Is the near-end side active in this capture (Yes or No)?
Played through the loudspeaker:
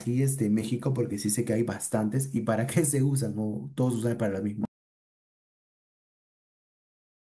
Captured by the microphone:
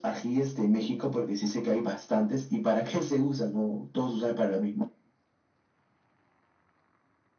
No